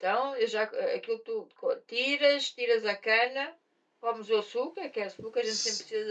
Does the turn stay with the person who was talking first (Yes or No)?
Yes